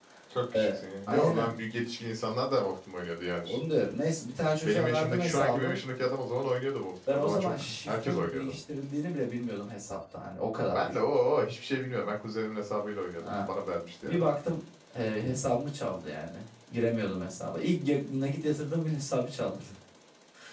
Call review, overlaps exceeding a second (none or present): present